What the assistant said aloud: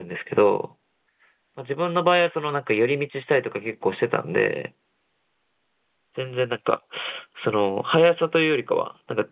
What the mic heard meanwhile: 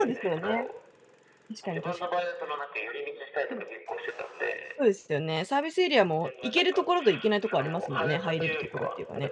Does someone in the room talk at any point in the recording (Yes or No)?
Yes